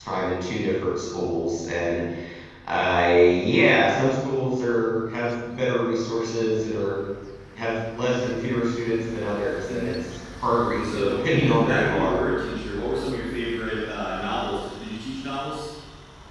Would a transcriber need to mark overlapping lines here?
Yes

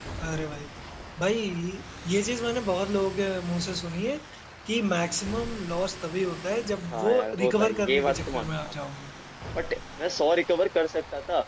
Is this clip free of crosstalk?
No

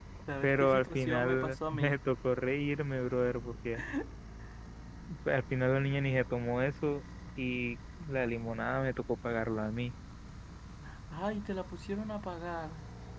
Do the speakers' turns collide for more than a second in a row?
Yes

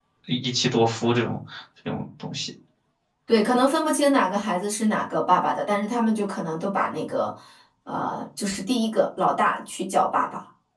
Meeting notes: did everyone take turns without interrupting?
Yes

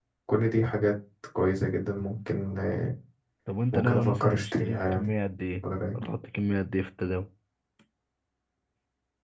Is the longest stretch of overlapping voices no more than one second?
No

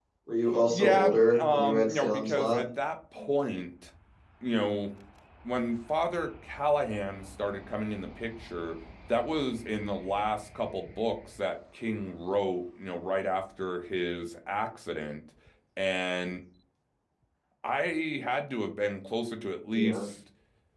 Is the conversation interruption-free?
No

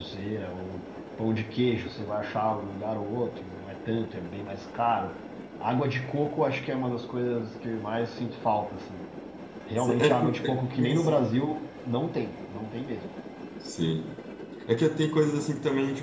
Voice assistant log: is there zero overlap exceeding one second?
No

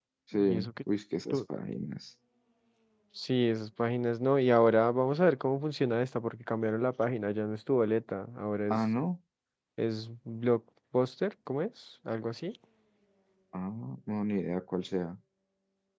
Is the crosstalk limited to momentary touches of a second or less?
Yes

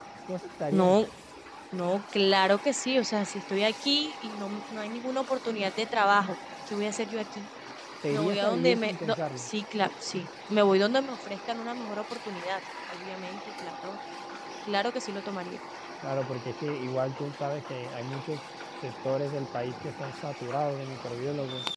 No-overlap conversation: No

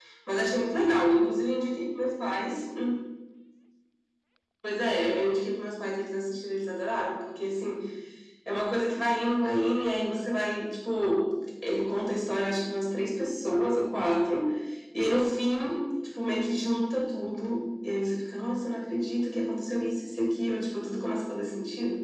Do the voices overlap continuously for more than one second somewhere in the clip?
No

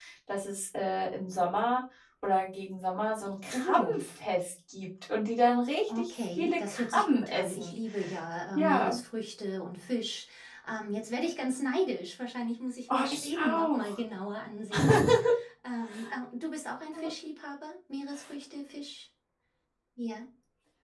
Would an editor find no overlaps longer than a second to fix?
No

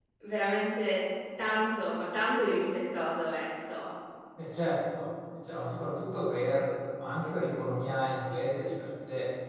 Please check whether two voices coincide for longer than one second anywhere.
No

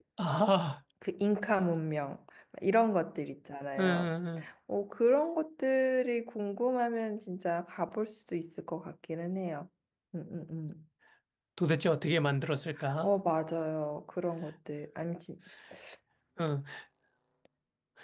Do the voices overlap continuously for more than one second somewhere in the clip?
No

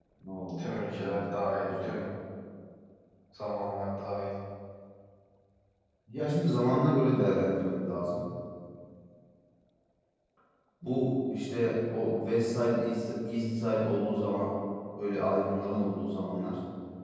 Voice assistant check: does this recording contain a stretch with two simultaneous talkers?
Yes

